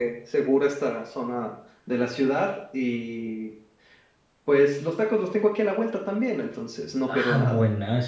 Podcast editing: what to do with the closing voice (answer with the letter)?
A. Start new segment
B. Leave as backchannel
A